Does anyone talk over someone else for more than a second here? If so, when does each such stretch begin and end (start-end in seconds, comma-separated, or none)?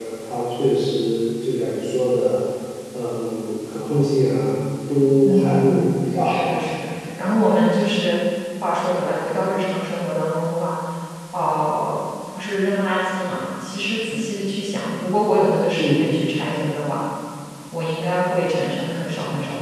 5.2-6.6